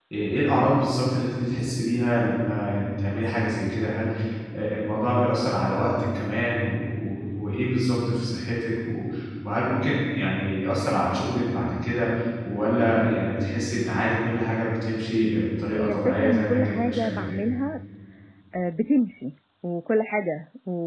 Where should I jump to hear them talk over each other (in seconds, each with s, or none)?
15.8 s